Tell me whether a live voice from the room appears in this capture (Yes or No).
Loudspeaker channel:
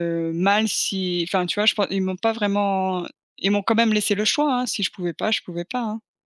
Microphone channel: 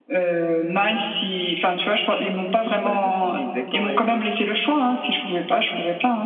Yes